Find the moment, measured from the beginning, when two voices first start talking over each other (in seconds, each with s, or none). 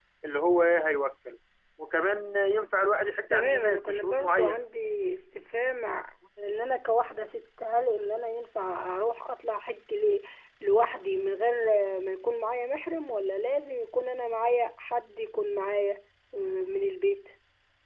3.3 s